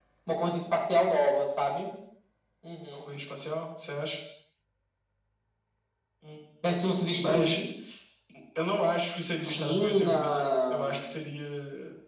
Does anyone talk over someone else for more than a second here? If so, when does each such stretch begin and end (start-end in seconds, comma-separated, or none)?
9.4-11.0